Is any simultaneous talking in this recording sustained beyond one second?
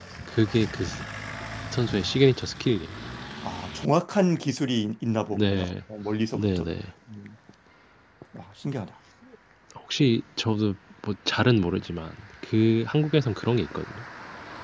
No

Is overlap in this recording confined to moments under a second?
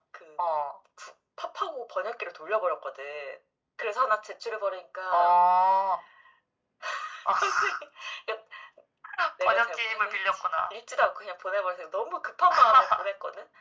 No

